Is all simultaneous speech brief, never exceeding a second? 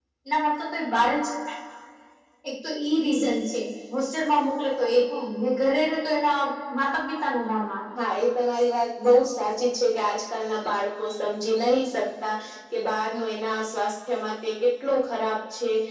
Yes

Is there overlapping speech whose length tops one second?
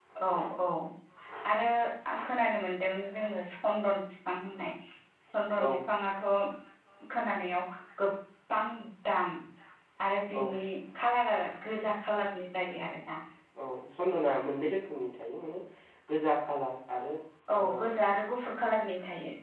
No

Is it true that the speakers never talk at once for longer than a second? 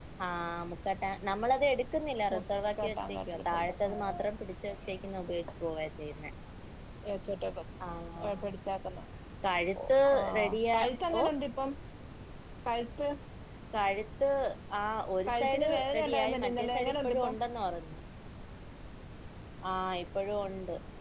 No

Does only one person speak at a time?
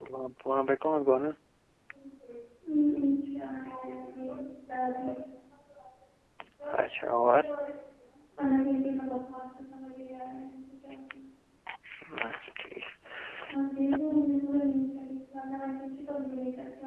Yes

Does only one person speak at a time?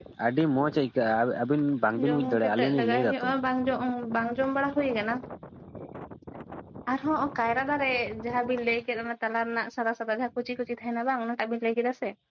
No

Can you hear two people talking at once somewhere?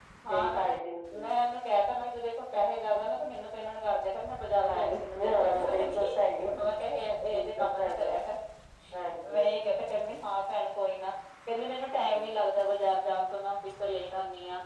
Yes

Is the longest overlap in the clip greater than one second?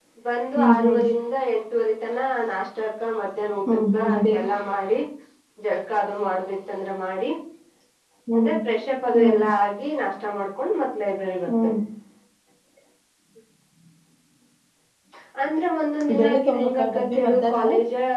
Yes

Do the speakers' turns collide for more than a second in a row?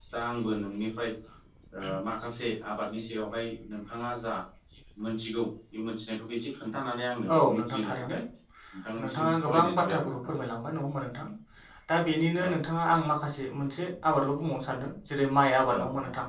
Yes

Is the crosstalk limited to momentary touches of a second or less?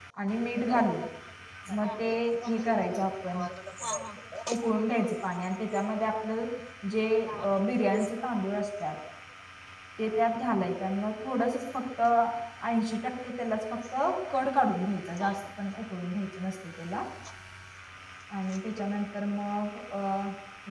No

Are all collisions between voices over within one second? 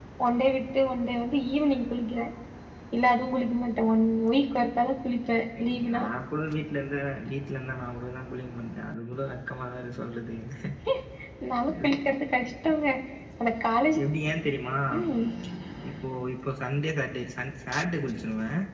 Yes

